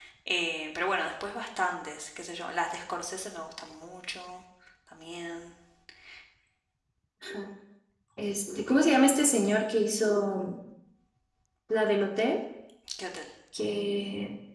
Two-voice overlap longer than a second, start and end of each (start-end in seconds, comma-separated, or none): none